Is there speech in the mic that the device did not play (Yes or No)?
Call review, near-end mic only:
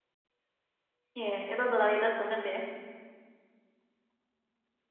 Yes